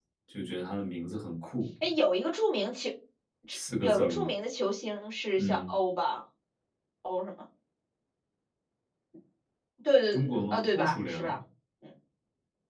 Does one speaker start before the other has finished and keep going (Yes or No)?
Yes